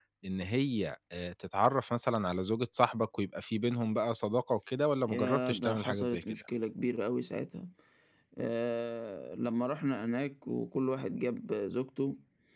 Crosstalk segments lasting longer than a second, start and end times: 5.1-6.4

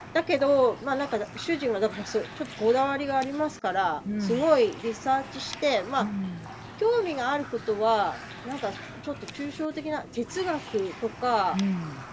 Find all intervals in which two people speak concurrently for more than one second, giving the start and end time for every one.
none

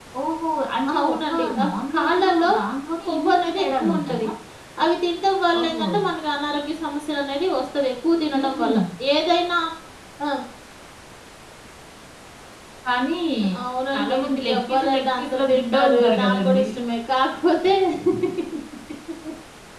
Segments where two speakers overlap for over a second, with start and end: 1.0-2.5, 3.1-4.3, 13.9-16.6

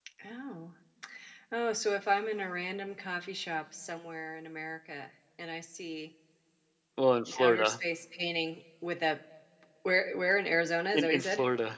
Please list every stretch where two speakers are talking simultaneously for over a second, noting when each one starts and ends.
none

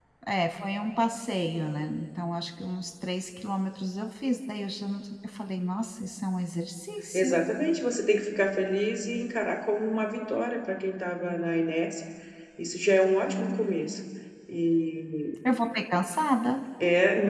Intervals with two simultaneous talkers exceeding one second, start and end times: none

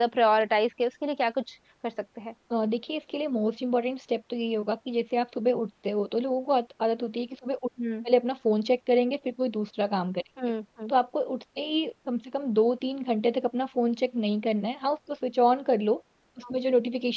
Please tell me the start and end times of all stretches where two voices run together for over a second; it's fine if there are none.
none

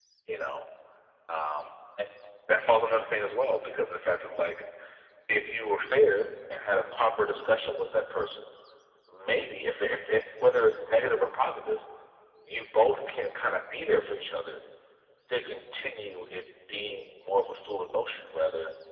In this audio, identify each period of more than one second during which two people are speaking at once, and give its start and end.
none

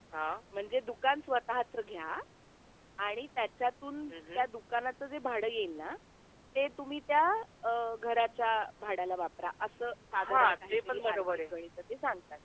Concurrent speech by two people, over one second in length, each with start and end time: 10.2-11.5

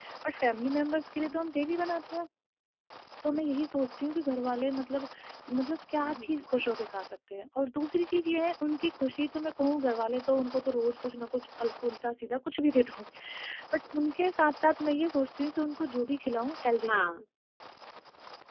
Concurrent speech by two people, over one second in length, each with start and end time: none

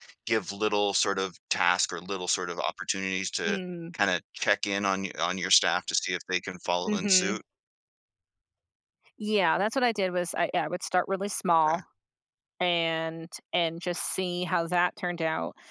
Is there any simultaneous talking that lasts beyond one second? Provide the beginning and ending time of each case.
none

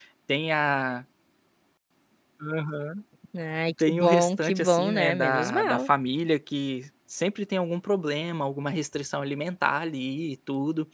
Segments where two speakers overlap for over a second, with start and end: 3.8-5.9

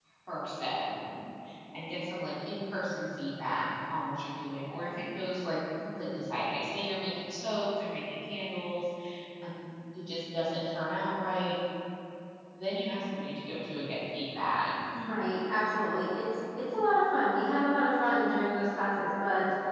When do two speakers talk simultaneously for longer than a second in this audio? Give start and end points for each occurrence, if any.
none

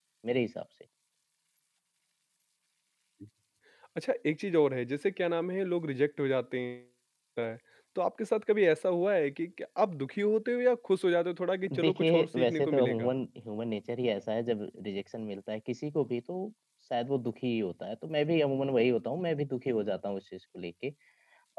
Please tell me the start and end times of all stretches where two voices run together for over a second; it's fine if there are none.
11.8-13.1

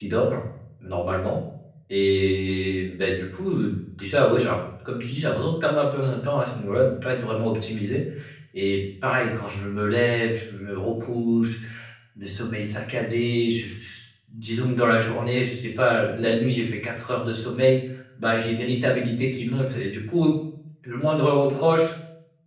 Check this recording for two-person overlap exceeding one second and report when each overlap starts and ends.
none

